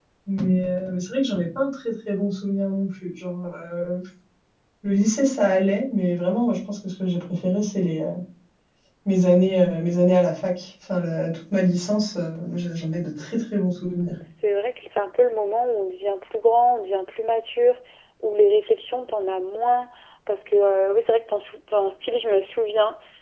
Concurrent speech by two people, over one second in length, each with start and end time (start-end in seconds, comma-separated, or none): none